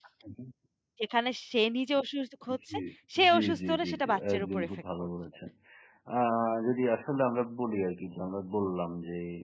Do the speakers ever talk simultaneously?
Yes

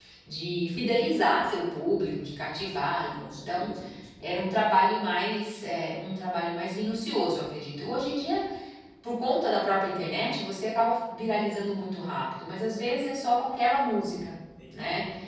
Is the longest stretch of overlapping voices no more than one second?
Yes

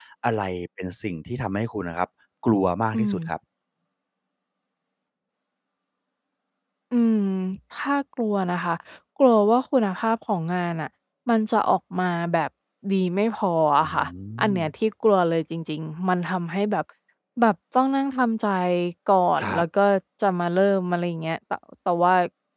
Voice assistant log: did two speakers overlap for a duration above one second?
No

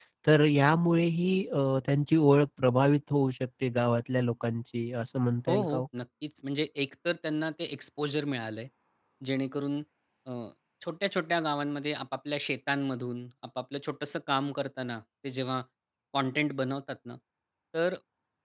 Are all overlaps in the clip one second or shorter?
Yes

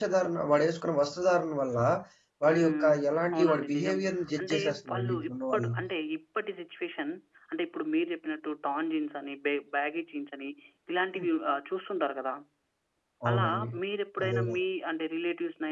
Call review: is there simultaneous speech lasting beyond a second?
Yes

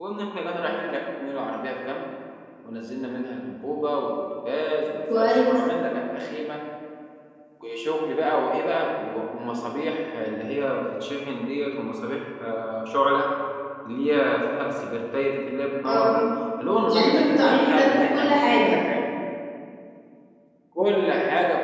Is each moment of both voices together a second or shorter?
No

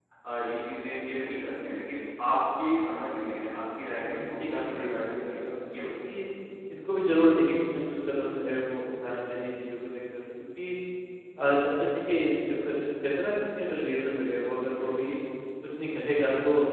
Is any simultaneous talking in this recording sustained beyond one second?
Yes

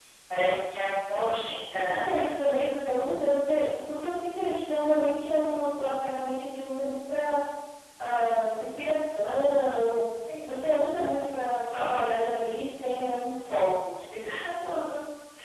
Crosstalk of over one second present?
No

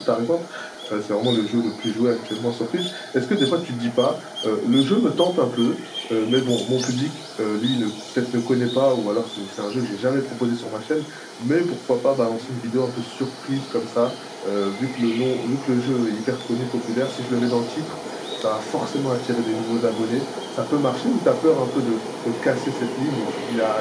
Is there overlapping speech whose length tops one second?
No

